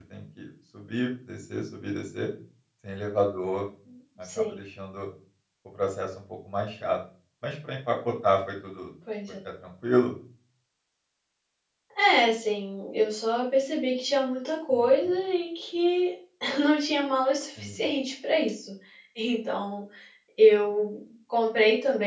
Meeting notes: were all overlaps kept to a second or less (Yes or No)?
Yes